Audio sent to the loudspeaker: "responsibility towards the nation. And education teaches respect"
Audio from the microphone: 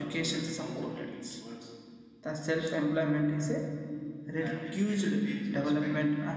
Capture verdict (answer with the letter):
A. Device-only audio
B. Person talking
B